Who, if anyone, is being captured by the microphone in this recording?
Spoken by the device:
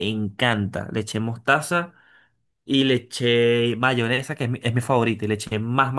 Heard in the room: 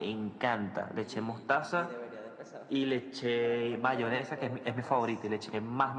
both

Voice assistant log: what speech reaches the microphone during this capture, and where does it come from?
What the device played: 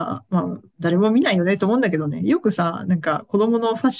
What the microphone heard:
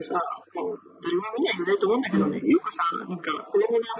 both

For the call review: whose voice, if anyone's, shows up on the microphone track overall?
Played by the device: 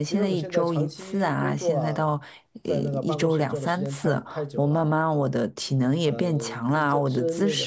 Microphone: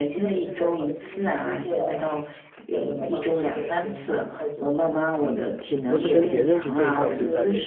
both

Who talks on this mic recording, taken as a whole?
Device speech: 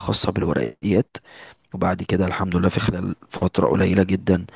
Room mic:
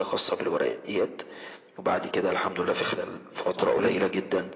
both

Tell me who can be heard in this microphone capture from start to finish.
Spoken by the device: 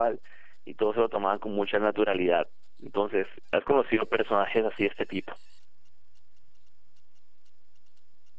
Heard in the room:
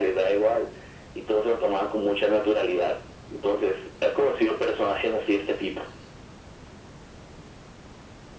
echo only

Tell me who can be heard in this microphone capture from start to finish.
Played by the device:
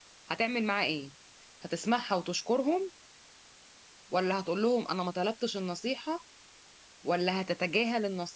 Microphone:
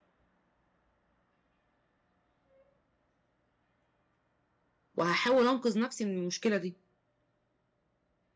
user only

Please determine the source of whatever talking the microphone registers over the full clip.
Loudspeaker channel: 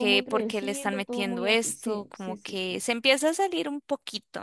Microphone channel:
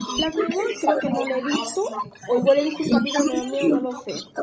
both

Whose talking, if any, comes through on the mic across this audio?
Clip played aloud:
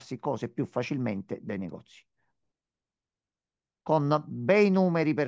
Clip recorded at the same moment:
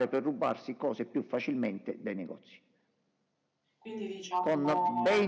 both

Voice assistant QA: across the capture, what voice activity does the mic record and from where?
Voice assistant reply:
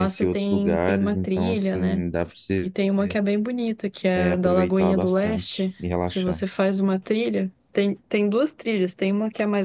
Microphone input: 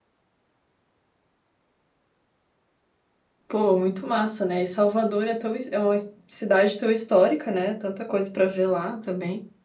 user only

